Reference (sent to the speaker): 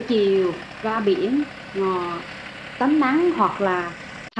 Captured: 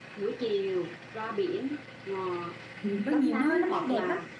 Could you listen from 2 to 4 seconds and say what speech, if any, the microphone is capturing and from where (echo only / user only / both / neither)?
both